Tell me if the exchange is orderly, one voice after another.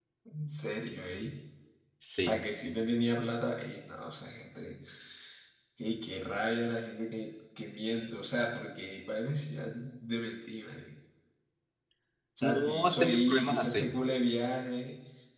No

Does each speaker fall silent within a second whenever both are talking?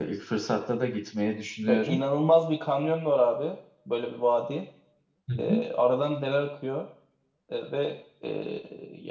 Yes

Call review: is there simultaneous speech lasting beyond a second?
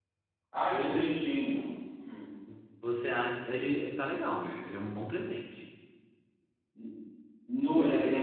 No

